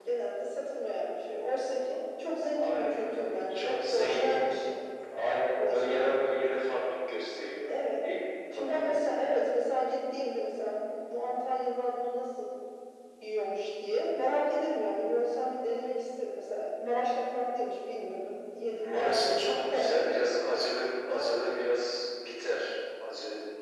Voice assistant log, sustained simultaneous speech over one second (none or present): present